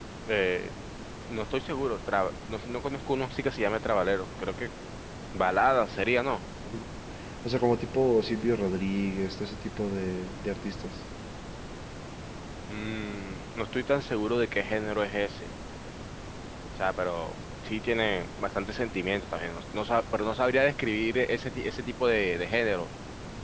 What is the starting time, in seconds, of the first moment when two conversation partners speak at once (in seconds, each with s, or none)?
none